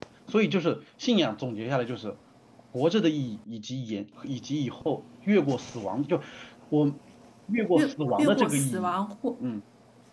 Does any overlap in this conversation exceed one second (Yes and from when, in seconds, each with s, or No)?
Yes, from 7.7 s